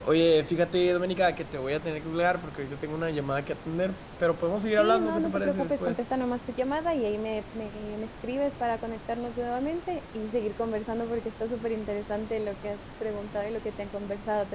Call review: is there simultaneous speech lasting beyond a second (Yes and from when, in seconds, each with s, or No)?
Yes, from 4.8 s